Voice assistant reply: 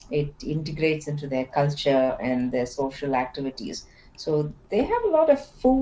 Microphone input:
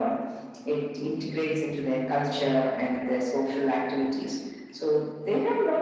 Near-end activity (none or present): none